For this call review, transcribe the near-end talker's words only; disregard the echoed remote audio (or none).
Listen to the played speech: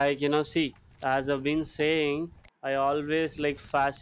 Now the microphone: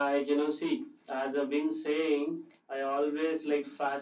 none